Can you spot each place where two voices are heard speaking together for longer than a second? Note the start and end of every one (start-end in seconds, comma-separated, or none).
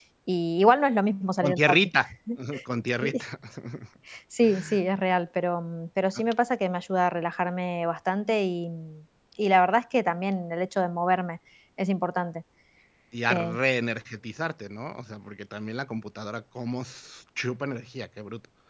none